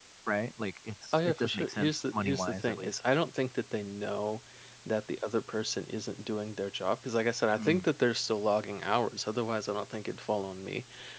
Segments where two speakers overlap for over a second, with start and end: 1.1-3.0

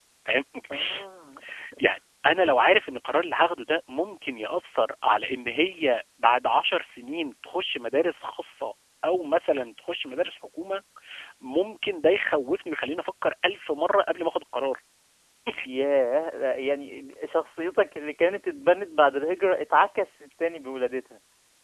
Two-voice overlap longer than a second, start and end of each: none

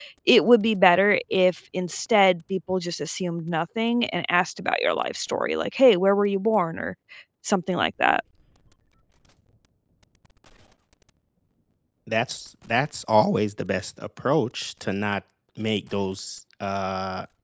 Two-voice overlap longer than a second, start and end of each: none

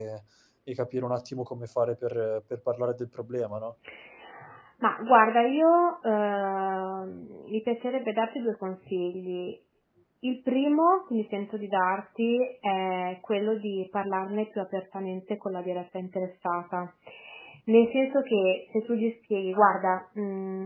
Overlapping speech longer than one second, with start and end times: none

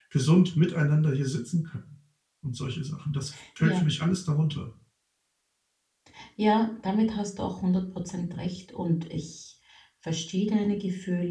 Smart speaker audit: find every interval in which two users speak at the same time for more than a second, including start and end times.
none

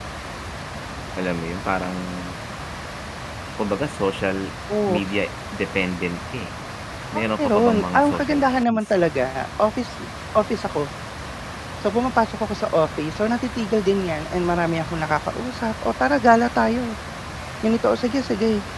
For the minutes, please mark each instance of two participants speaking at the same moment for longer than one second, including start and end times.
7.1-8.8

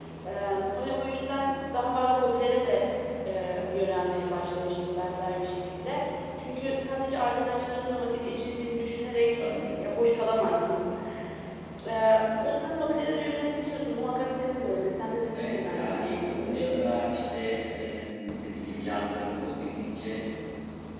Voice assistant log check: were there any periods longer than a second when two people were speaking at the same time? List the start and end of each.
15.3-16.9

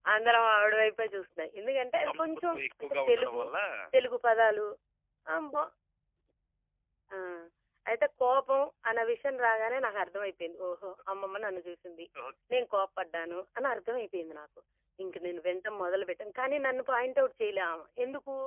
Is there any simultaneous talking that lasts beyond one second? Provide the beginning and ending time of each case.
2.1-3.4

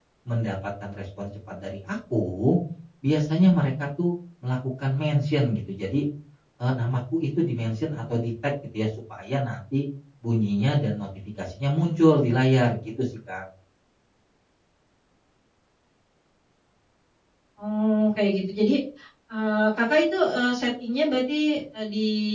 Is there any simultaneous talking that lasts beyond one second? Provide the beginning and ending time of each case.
none

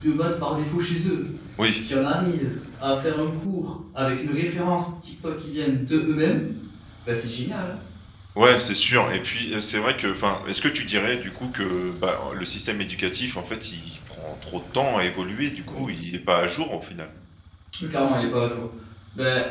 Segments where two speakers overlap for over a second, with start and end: none

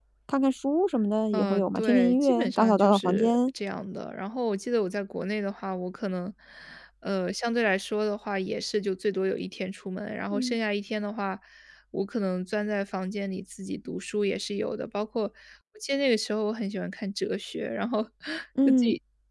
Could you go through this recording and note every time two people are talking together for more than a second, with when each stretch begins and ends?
1.3-3.4

